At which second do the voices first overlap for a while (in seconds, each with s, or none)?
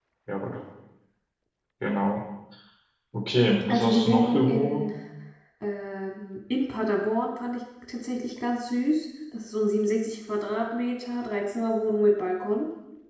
3.7 s